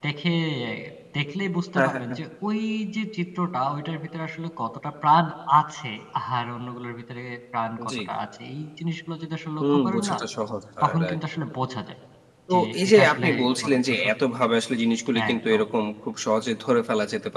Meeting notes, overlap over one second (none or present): present